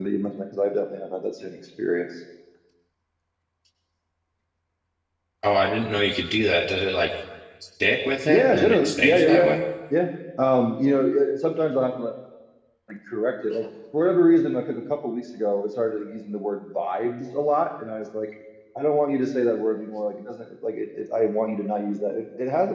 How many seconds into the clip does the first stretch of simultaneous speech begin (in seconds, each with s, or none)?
8.2 s